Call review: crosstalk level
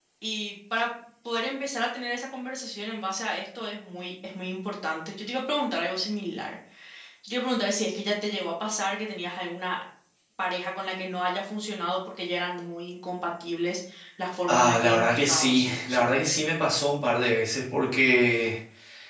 present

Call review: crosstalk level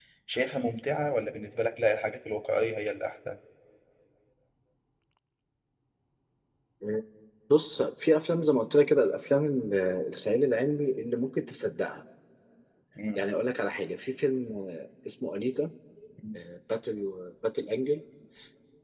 none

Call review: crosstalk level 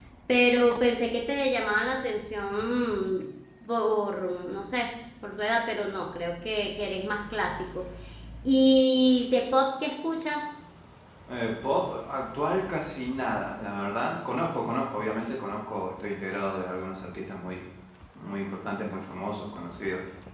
none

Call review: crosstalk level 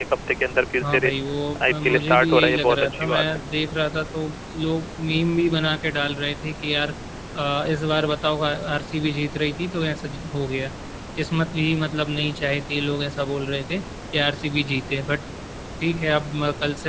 present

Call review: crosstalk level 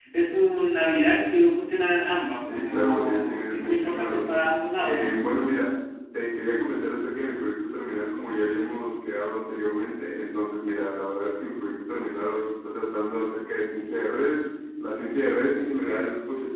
present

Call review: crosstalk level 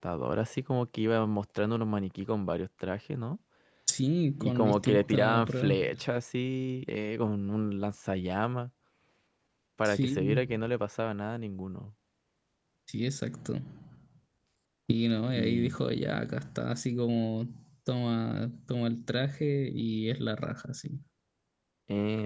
present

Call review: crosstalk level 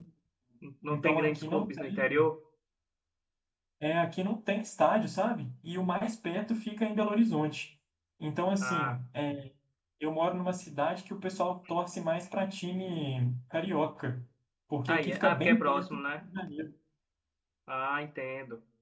present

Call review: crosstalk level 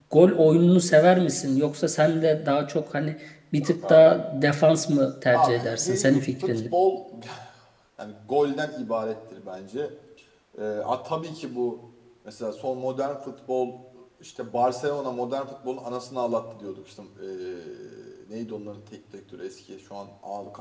present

